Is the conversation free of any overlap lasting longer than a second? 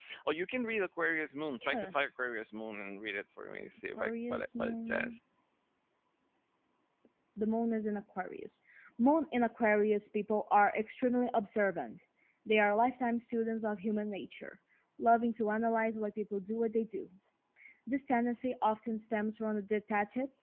No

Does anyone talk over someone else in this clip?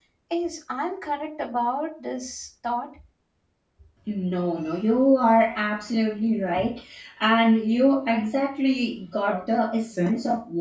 No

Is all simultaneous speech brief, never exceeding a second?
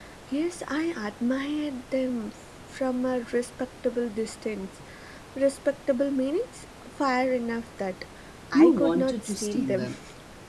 No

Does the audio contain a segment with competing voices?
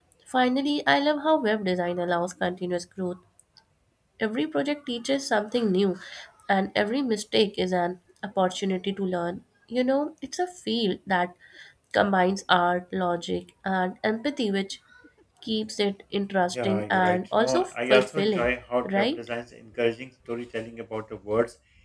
Yes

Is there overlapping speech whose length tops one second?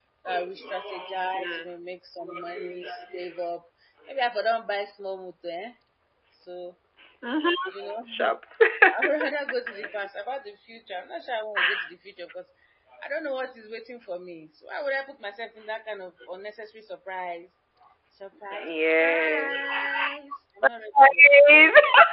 Yes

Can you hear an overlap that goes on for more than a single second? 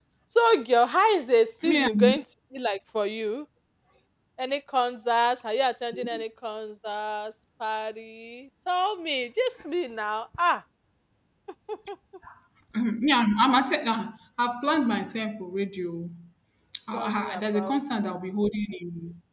Yes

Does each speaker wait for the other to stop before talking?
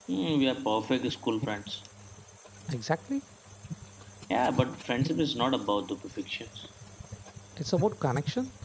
Yes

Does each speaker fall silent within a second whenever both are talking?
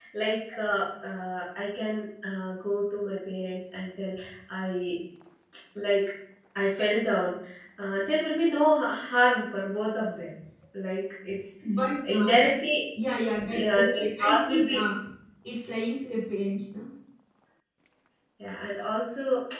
No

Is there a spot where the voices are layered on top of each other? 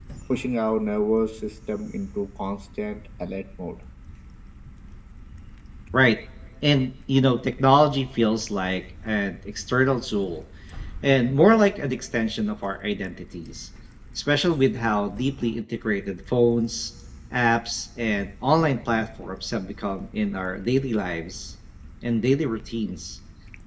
No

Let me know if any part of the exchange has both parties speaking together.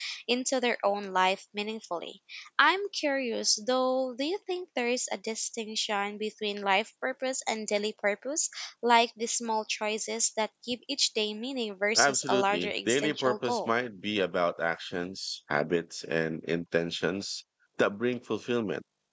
Yes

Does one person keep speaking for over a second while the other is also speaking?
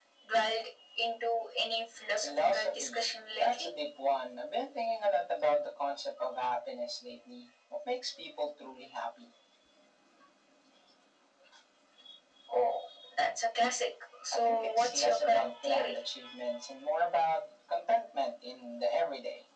Yes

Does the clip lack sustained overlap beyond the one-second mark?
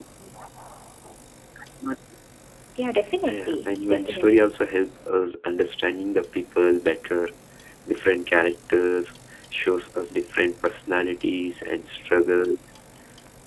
No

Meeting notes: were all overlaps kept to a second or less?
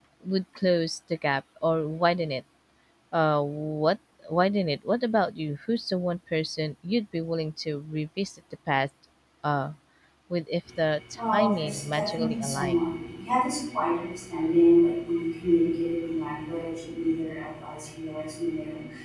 No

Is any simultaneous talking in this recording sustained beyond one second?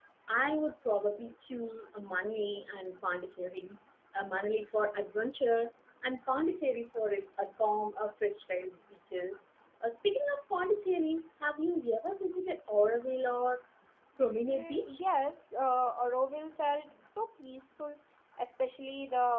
No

